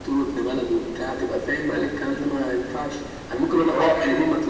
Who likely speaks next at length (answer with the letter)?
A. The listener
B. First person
B